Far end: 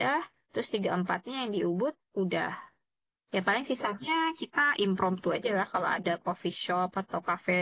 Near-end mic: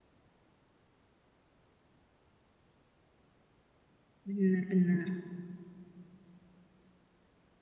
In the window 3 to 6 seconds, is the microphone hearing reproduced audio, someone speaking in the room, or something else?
user only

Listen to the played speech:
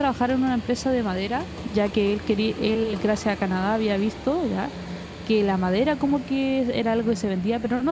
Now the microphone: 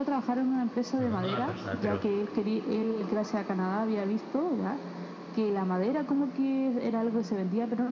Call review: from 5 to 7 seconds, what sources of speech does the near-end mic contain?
echo only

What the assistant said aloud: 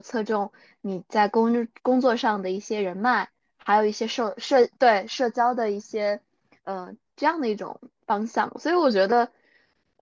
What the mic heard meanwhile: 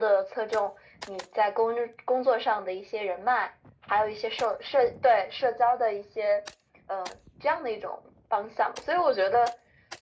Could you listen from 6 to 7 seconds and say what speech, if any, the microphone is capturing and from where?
echo only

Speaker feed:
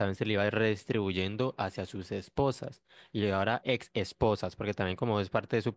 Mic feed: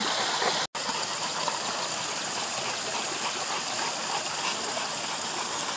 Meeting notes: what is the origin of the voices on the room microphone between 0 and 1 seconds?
neither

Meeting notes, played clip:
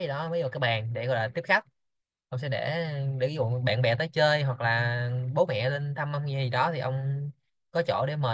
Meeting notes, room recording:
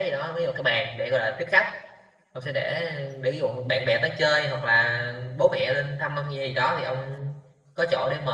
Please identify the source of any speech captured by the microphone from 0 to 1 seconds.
echo only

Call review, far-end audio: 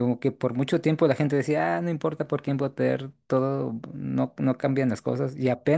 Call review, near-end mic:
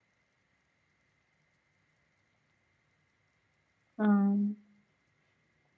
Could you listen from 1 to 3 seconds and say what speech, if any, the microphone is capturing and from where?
neither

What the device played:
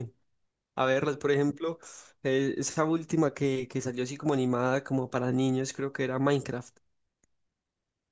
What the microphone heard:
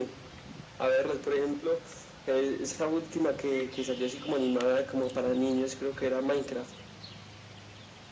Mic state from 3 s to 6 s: echo only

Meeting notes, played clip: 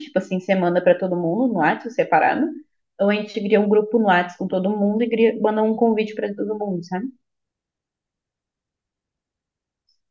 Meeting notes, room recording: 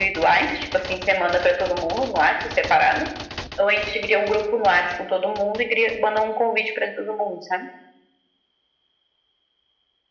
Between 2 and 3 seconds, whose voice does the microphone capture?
echo only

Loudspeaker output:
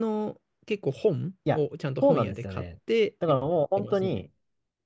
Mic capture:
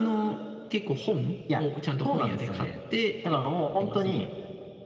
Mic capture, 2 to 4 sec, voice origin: echo only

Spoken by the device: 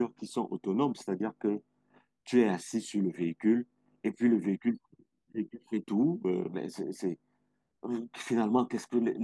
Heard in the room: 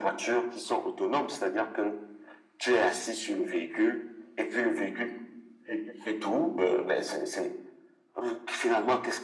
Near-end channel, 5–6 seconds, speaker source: echo only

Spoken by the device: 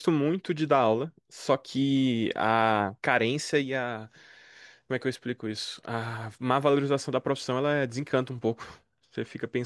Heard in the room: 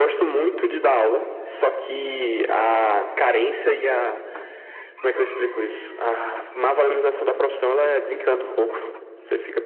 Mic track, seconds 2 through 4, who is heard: echo only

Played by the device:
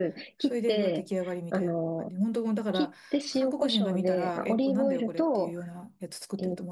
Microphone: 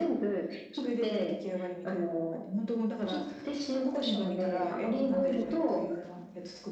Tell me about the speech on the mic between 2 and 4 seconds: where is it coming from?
echo only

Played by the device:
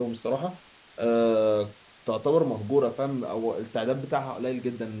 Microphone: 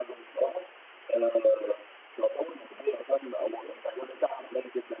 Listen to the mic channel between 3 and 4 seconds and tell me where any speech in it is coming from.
echo only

